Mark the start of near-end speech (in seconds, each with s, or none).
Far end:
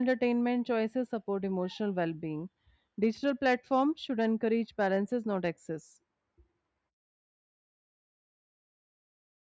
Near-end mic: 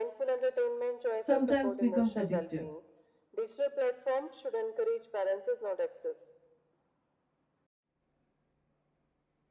1.2 s